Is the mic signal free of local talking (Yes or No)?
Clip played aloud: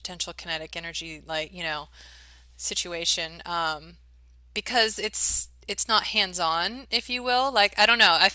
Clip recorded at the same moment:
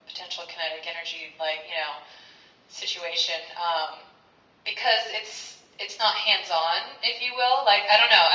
Yes